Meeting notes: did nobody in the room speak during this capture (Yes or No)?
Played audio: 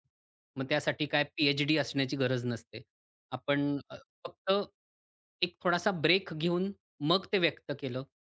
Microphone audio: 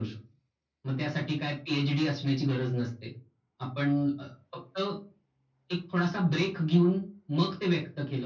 Yes